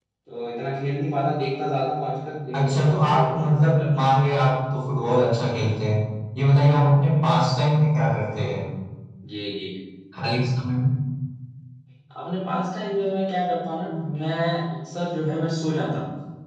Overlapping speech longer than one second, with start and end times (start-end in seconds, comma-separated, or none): 2.5-4.1